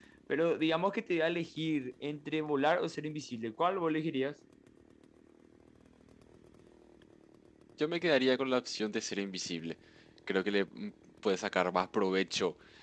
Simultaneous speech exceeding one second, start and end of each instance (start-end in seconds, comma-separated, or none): none